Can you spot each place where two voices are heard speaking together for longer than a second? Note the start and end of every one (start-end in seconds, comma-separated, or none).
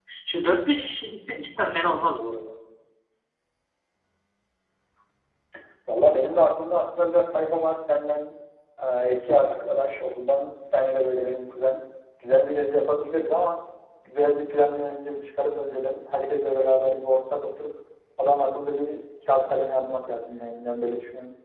none